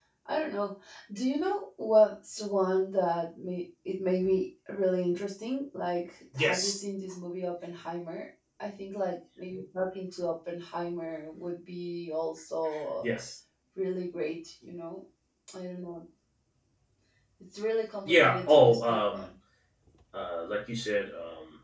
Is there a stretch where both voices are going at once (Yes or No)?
Yes